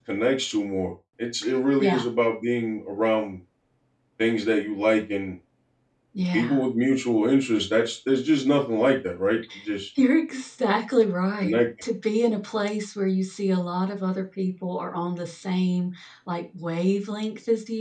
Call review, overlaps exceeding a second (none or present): none